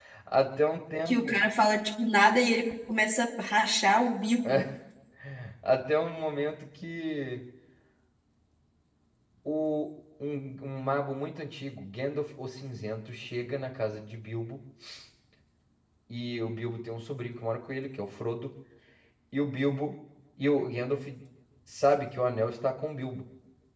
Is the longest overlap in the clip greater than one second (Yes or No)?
No